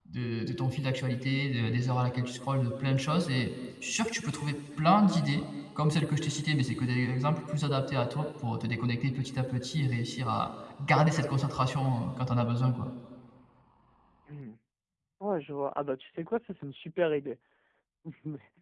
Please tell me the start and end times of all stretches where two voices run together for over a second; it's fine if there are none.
none

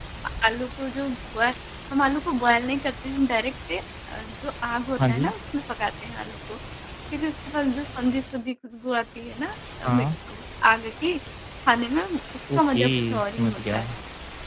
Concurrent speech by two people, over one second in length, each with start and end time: 12.6-13.8

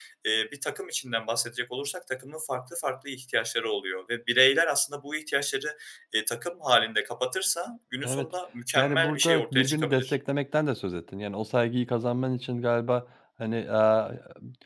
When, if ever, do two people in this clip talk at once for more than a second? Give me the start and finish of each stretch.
8.8-10.2

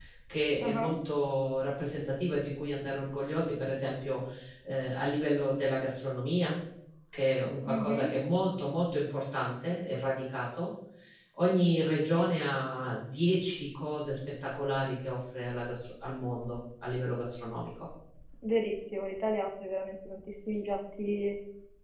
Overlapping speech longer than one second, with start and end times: none

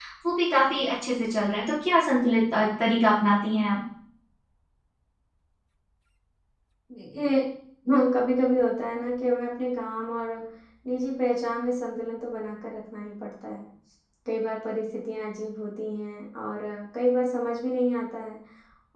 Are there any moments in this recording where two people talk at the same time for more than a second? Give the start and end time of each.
none

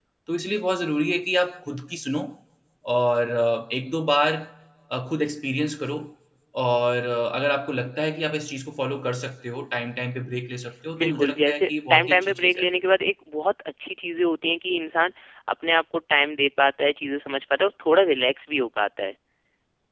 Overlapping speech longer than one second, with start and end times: 11.0-12.6

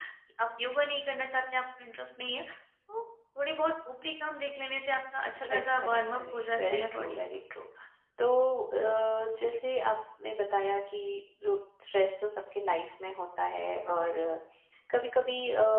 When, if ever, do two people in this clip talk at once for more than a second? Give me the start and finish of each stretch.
5.4-7.2

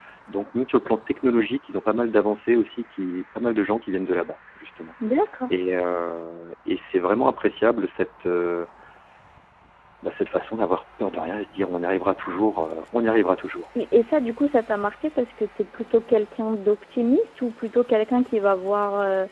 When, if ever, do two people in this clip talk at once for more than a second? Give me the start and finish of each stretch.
none

